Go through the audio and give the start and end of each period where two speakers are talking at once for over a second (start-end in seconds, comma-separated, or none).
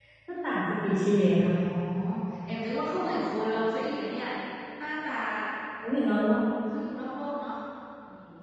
none